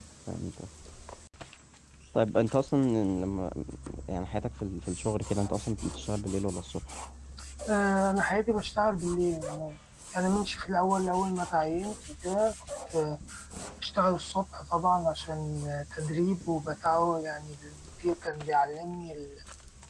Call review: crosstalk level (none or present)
none